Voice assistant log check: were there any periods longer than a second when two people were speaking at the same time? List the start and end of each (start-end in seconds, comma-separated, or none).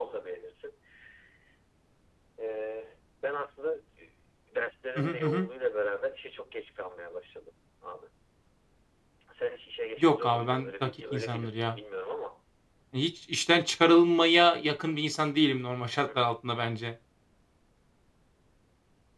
10.0-11.8